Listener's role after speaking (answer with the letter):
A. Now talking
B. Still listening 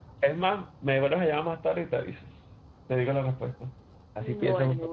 A